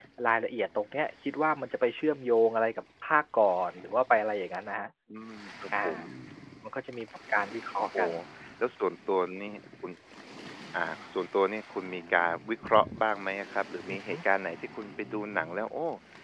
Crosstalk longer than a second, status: none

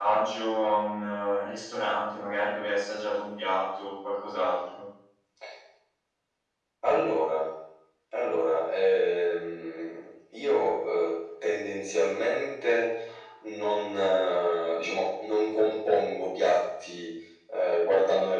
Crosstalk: none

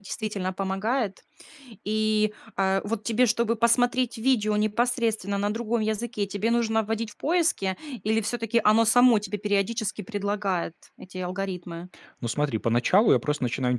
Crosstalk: none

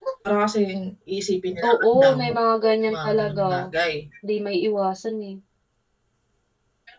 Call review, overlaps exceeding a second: present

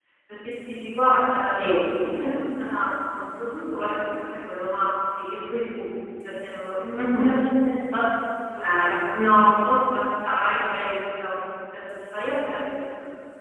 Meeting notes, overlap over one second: none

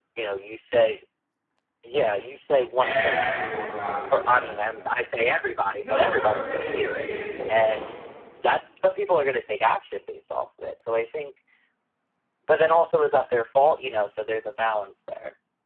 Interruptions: present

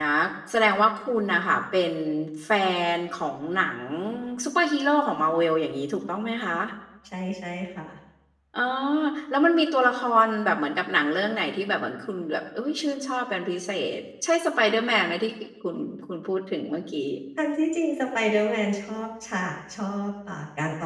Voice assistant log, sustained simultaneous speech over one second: none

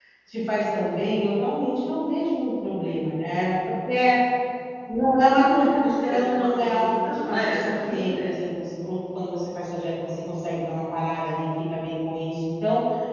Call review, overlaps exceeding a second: present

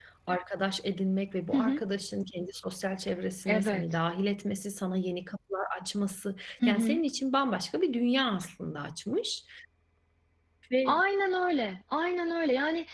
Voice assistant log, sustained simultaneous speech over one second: none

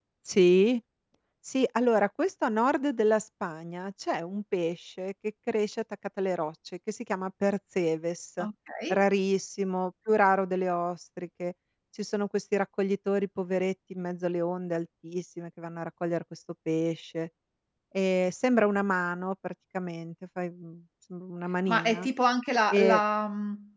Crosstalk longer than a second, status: none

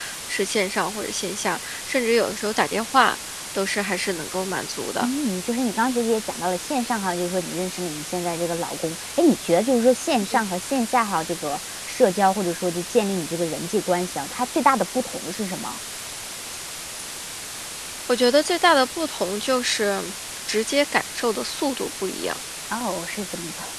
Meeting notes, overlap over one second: none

